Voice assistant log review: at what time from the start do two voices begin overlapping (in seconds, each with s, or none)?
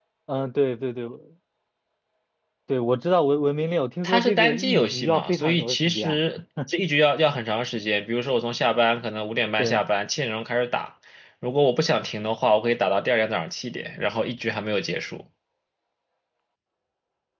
4.0 s